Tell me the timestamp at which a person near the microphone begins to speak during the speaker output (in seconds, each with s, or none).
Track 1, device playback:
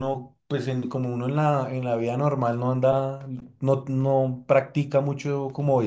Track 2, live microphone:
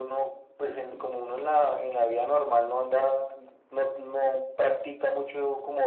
none